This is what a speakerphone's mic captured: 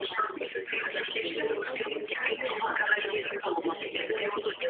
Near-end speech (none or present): present